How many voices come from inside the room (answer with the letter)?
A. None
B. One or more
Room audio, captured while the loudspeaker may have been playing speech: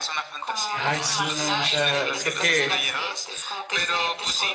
B